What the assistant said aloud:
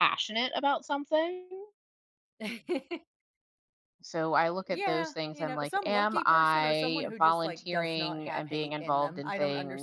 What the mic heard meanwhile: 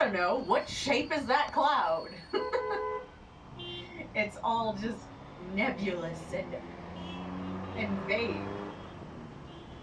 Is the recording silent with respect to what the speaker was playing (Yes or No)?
Yes